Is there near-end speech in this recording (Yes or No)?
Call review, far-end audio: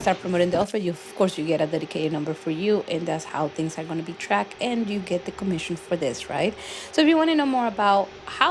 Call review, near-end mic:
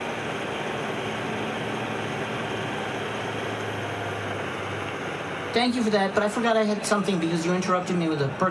Yes